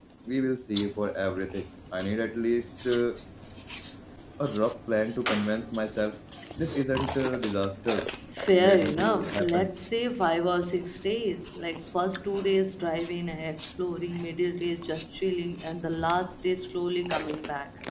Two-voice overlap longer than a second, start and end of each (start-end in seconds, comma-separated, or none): 8.5-9.7